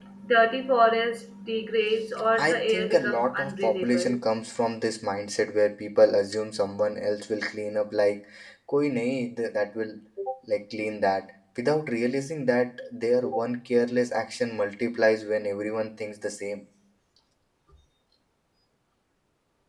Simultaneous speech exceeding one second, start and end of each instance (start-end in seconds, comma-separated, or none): 2.4-4.2